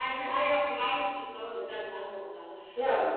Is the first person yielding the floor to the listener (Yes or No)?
No